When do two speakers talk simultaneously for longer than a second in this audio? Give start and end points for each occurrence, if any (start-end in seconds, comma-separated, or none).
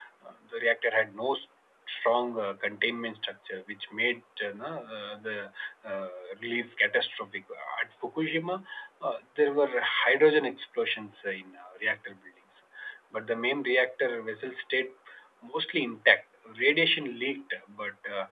none